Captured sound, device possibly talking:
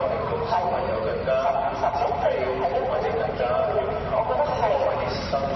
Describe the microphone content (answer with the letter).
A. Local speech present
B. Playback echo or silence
B